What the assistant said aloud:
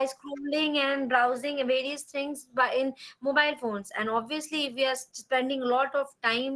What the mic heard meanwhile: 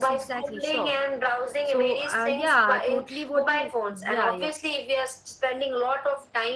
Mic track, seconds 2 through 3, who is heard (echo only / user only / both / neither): both